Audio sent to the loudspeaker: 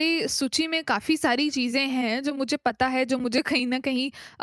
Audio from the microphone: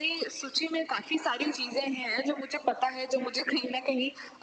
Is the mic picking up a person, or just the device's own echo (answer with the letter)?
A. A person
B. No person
B